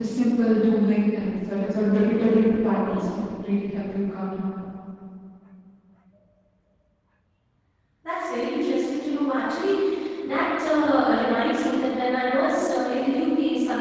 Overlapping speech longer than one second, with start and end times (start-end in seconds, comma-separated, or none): none